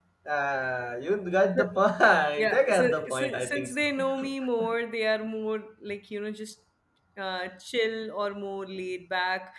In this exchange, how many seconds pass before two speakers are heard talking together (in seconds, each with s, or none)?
2.4 s